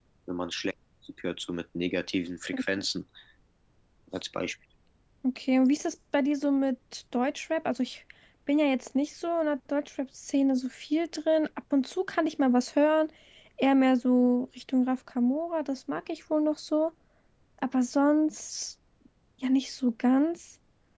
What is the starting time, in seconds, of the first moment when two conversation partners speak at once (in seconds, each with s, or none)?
none